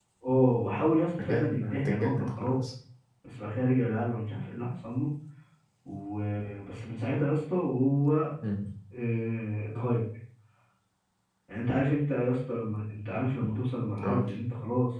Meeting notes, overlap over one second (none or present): present